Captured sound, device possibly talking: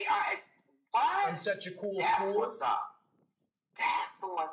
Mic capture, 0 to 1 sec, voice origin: echo only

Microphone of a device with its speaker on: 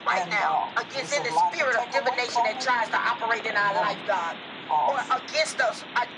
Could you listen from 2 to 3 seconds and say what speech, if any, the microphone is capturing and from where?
both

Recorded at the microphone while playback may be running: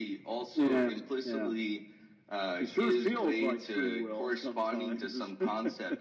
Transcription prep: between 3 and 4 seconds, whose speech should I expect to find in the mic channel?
echo only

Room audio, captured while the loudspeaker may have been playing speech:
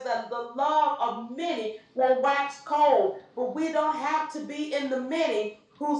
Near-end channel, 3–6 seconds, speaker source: echo only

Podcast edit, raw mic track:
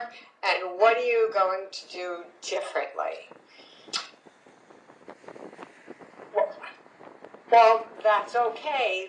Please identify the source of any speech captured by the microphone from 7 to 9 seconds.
echo only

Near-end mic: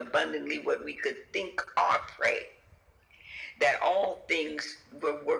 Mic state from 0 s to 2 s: echo only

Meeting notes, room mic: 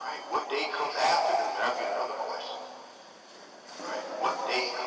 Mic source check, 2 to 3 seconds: echo only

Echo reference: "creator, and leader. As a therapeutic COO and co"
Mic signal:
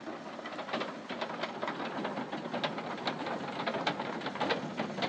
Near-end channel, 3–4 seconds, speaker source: neither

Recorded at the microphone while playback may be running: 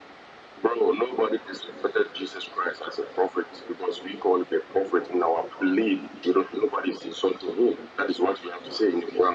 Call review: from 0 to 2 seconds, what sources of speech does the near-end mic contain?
echo only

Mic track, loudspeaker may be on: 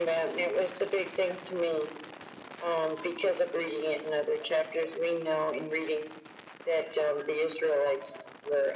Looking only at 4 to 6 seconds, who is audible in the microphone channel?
echo only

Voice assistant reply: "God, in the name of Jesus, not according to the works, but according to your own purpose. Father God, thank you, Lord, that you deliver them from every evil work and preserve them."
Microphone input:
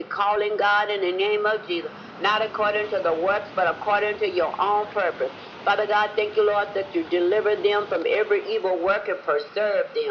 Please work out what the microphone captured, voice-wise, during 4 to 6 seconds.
echo only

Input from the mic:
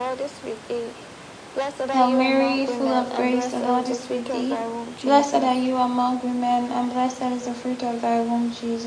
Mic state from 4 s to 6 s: both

